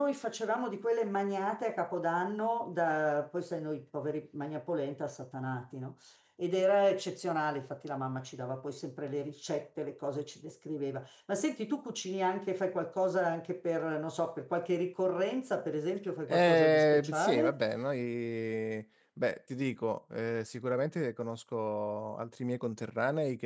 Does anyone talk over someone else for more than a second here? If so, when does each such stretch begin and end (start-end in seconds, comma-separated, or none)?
16.3-17.6